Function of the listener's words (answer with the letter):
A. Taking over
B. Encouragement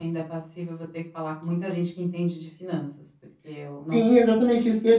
A